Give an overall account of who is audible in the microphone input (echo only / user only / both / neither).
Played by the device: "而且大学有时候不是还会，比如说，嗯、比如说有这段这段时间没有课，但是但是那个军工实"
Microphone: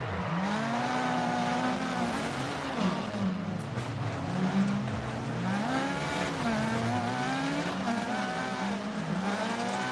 neither